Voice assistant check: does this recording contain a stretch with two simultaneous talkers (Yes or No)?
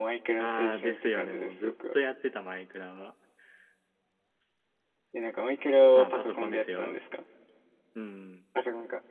Yes